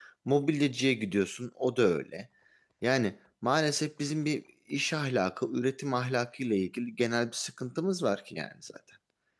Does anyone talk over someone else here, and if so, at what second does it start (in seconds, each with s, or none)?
none